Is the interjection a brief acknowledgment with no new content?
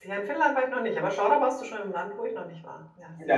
No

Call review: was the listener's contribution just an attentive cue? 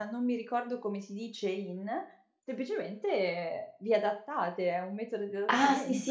No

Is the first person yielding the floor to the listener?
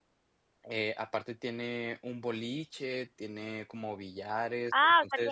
Yes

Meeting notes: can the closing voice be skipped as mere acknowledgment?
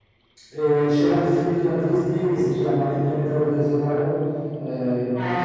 Yes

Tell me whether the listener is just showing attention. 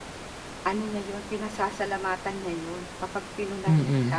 Yes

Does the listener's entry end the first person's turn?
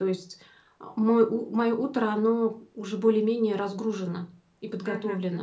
Yes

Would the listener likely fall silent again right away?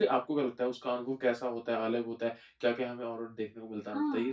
No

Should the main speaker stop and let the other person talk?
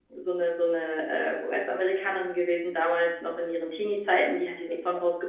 No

